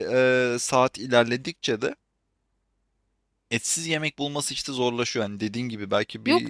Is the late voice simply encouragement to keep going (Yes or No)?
No